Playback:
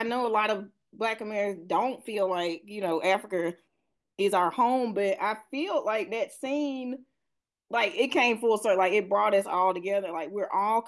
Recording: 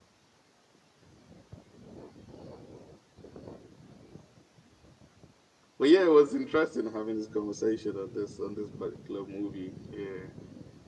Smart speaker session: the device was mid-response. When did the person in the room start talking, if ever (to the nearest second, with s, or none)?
6 s